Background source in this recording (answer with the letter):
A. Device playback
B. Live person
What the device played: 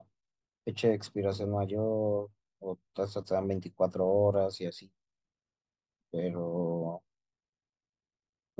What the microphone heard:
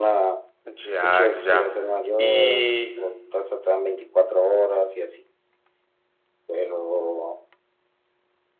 A